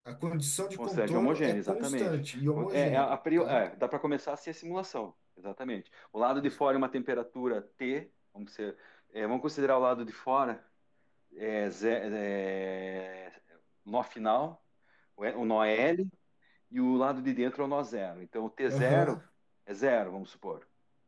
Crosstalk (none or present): present